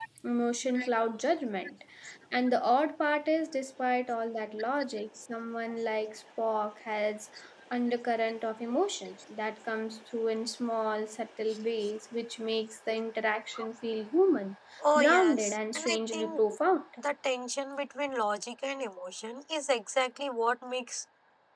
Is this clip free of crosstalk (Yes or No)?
No